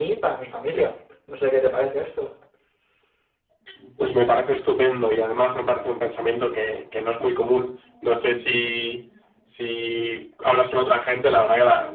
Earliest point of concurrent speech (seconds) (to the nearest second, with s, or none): none